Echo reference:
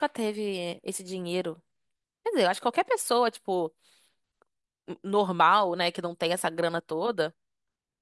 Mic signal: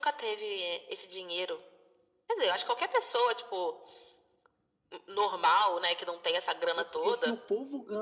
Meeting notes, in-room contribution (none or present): present